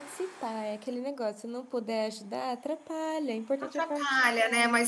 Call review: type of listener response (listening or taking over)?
taking over